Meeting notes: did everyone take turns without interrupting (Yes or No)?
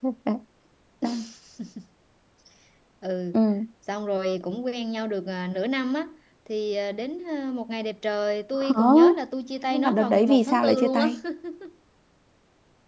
No